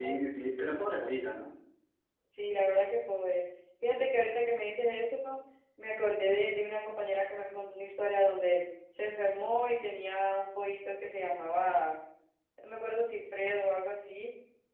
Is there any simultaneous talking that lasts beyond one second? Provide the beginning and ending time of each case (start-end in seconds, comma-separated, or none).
none